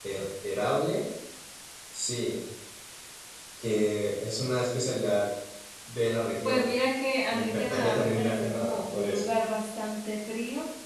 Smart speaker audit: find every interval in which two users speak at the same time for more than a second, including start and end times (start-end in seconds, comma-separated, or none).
7.3-9.3